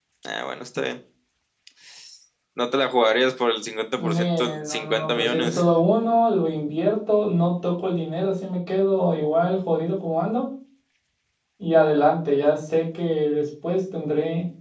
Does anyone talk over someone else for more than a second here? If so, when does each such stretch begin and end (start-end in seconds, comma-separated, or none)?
4.0-5.6